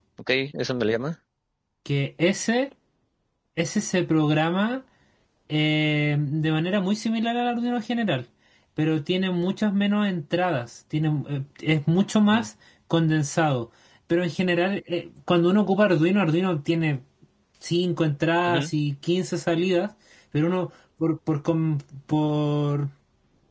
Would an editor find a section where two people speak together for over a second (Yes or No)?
No